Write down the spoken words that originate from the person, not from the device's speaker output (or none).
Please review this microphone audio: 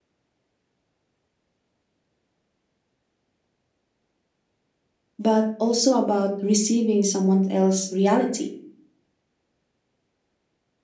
but also about receiving someone else's reality.